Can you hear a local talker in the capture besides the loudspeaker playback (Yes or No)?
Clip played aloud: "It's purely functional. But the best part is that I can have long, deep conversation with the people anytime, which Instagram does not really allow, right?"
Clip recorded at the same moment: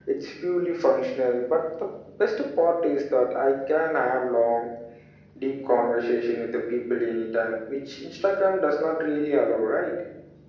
No